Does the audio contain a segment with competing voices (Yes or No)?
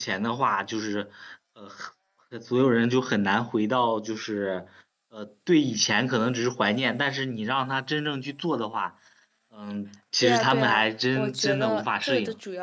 Yes